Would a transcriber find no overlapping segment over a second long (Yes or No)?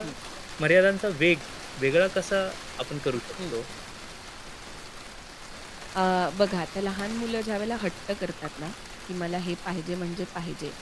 Yes